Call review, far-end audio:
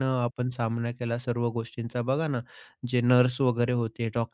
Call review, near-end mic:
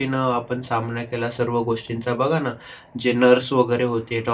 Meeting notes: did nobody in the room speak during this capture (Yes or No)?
Yes